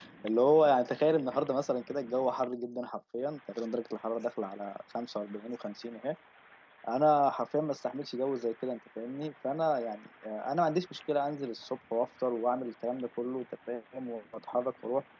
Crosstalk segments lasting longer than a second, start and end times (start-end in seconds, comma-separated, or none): none